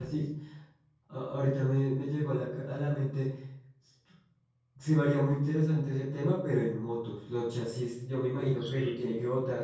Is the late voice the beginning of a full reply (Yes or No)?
No